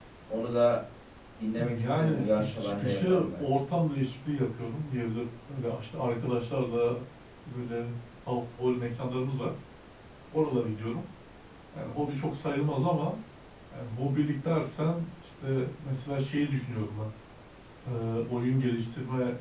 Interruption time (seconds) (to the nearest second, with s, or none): 2 s